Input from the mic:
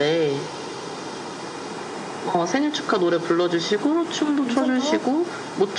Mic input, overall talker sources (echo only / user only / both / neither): both